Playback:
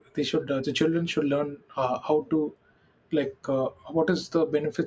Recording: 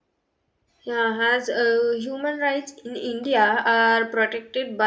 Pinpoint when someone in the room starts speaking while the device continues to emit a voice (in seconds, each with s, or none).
0.8 s